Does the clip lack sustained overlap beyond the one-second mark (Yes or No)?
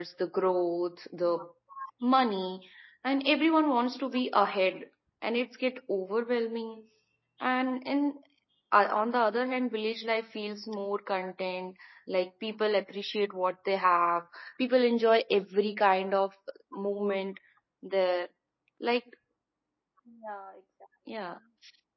Yes